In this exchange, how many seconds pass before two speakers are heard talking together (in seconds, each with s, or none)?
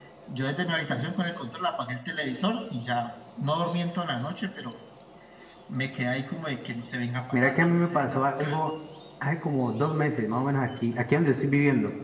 7.3 s